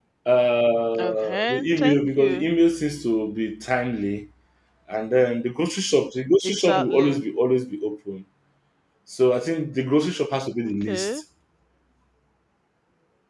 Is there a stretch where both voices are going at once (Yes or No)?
Yes